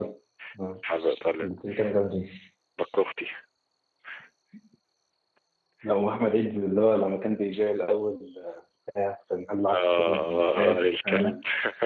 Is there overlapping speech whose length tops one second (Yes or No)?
Yes